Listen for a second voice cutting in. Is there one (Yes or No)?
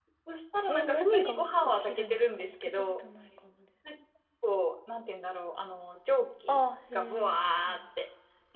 Yes